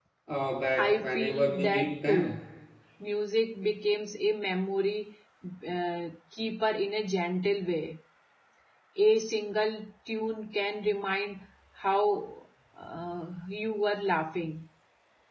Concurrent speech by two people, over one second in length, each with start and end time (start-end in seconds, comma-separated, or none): 0.8-2.4